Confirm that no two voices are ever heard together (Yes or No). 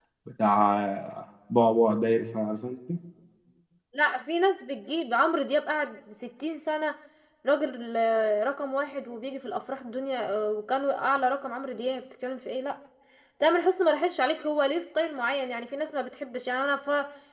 Yes